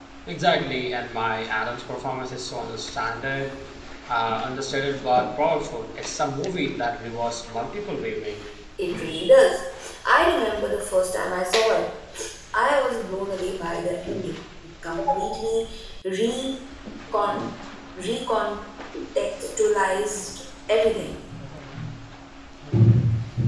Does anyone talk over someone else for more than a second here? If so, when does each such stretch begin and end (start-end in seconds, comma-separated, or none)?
none